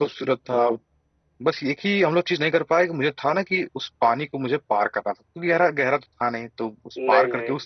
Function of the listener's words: listening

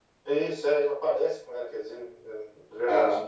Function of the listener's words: taking over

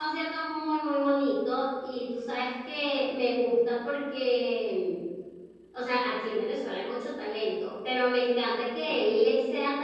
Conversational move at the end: listening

